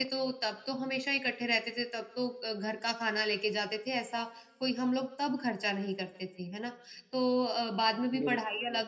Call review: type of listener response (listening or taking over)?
listening